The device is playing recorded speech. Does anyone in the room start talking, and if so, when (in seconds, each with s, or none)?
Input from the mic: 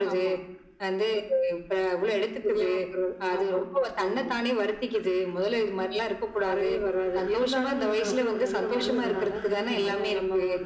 7.9 s